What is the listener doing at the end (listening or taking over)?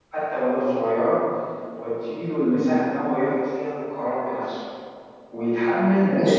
listening